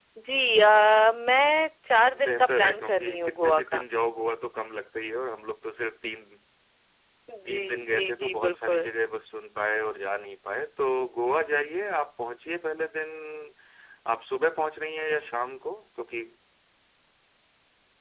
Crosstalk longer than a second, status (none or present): present